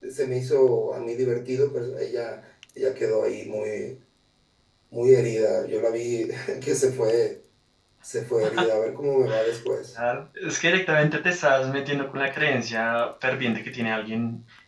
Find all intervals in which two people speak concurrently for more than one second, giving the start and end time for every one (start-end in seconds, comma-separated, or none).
none